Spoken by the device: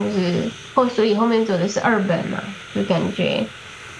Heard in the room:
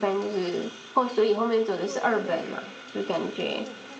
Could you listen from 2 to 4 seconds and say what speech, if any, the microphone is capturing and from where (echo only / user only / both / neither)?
both